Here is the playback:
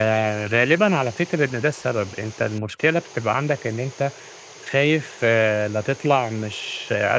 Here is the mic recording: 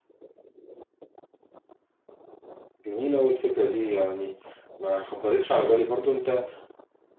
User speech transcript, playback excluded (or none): جميلة أوي الفكرة دي، يعني ما خطرتش على بالي برضه. أنت